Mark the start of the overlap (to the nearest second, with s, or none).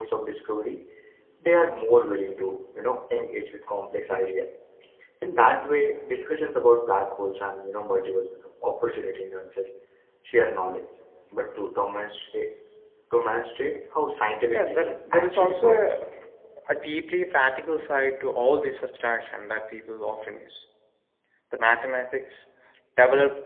15 s